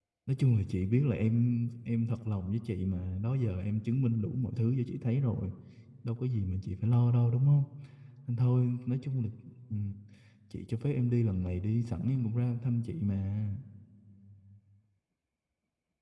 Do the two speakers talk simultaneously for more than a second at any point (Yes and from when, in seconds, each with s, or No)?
No